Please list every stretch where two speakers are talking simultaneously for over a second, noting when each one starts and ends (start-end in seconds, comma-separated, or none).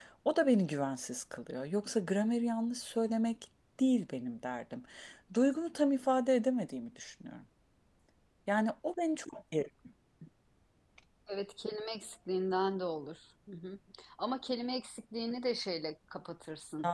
none